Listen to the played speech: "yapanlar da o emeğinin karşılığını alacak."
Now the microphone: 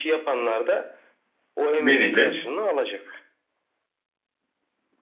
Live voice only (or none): Vereceğiz.